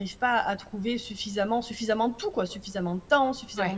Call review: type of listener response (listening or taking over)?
listening